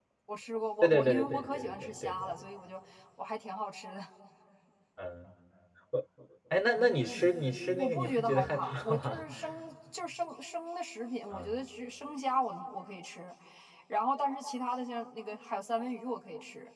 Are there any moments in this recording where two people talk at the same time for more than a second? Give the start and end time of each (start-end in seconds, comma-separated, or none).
0.8-2.5, 7.8-9.2